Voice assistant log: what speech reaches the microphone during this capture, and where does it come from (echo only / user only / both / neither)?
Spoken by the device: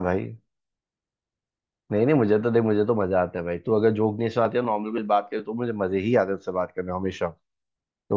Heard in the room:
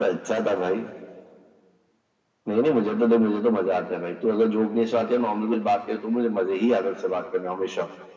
echo only